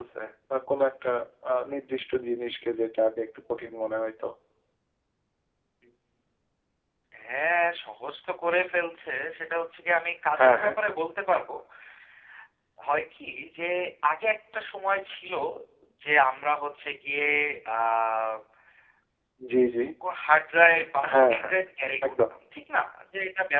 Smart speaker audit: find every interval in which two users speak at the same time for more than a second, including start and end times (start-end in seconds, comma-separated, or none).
none